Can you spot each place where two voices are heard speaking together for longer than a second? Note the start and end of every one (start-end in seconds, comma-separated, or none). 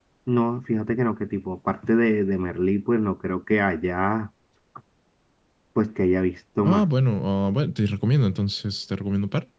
none